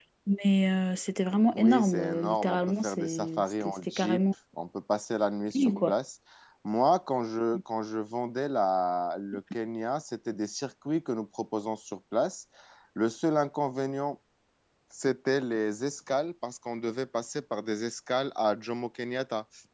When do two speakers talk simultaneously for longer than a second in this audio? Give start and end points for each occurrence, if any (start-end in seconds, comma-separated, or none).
1.5-4.2